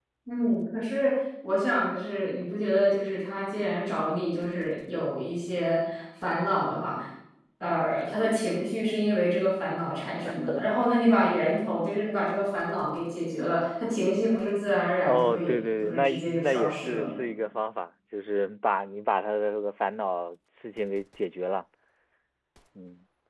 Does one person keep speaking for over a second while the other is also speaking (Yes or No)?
Yes